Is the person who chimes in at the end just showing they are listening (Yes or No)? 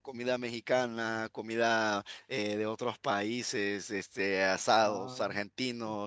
Yes